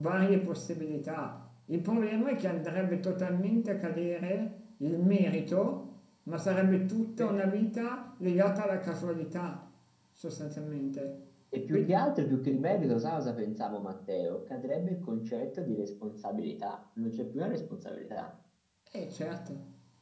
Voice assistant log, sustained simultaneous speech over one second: none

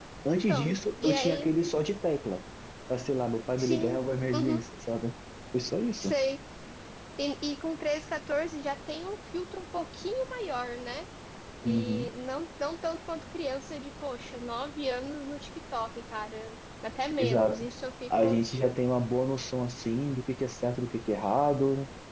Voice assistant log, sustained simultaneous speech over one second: present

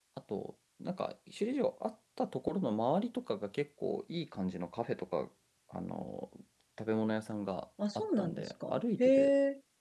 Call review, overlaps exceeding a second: present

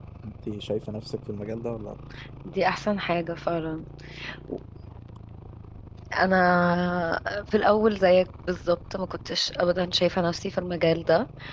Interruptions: none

